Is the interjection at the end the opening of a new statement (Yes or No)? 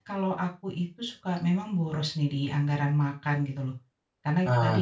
No